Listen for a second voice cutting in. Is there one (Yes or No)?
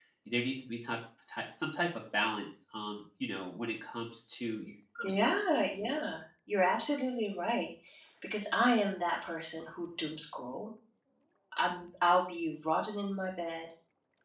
No